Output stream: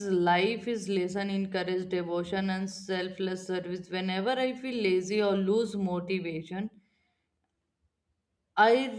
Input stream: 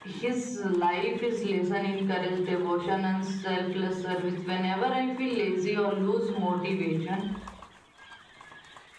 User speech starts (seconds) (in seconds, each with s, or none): none